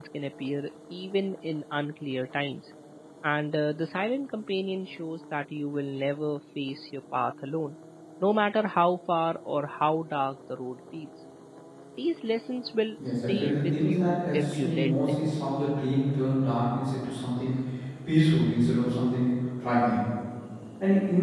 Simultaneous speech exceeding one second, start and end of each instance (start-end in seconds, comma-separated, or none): 13.1-15.2